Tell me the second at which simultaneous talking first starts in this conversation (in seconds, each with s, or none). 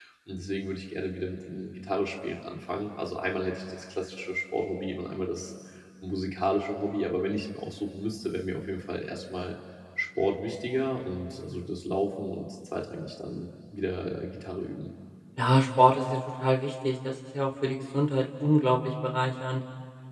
none